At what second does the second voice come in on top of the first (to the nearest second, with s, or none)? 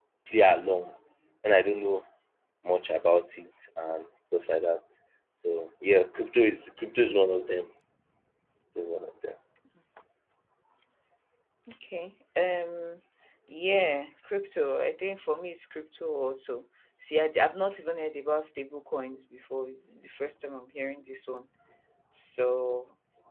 none